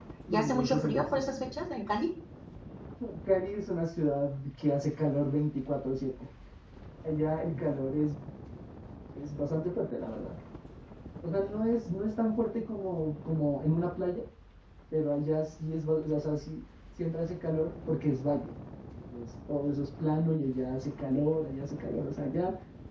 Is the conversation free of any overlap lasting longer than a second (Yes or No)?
No